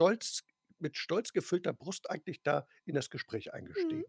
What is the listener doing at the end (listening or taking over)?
taking over